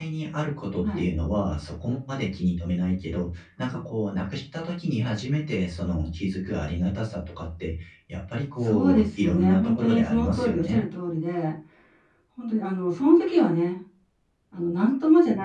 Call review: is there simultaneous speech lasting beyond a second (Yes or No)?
Yes